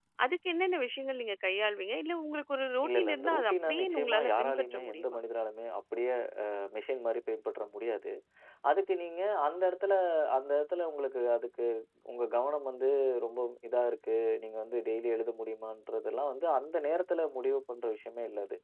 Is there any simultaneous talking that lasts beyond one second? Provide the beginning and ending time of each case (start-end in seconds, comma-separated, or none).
2.9-5.2